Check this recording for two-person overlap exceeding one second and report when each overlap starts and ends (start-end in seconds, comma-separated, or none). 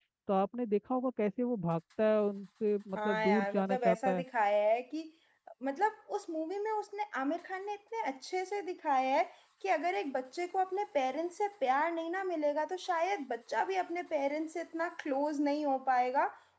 3.0-4.2